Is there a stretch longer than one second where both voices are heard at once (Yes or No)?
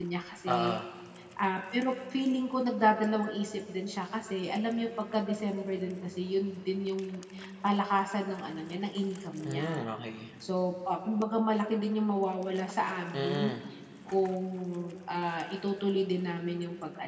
No